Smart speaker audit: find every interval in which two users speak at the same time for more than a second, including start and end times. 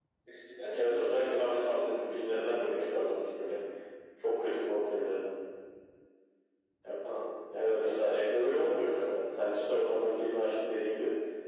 0.7-3.6, 7.8-10.5

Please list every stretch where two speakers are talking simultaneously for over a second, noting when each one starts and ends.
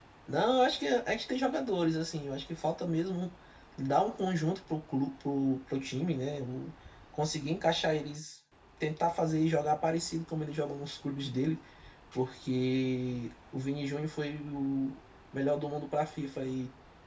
none

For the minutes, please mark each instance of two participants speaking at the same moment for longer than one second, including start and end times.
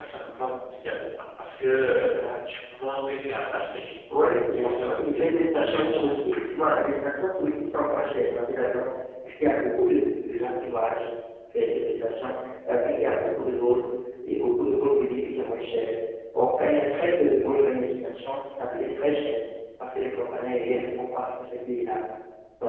4.5-6.1

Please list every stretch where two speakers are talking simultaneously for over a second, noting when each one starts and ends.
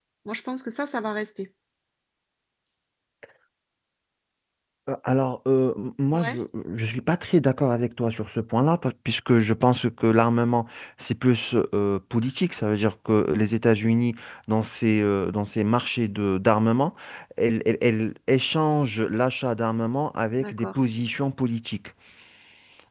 none

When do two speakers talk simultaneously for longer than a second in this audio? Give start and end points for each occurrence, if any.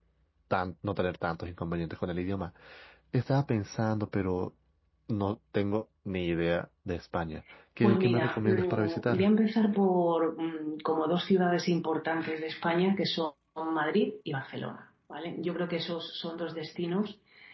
7.8-9.3

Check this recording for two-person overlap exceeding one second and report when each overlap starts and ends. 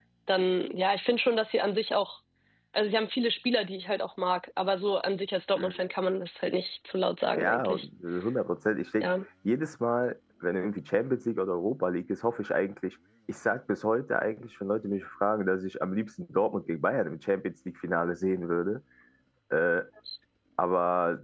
none

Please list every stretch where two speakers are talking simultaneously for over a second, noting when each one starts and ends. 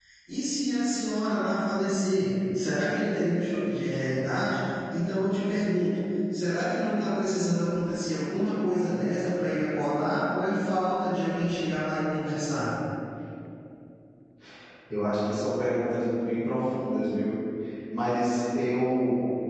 none

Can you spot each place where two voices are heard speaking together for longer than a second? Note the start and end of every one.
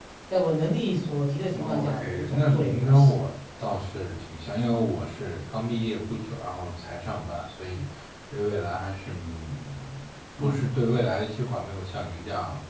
1.5-3.1

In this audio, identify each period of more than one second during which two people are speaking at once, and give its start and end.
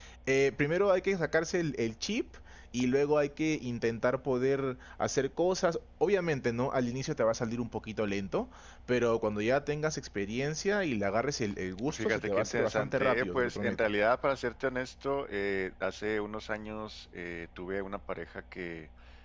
11.9-13.8

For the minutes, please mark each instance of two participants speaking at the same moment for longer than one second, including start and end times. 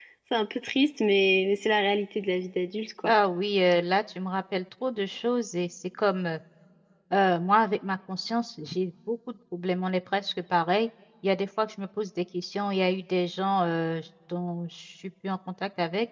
none

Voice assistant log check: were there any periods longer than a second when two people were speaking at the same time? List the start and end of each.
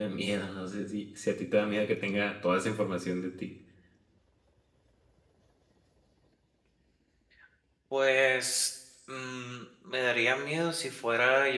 none

